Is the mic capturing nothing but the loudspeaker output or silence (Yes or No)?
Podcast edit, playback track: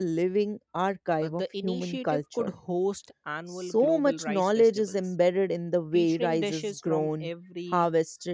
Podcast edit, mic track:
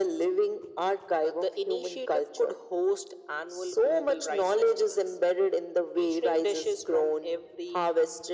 Yes